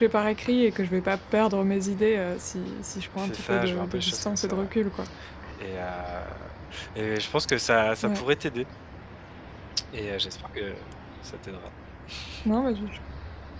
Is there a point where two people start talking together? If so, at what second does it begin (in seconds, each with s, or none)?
3.2 s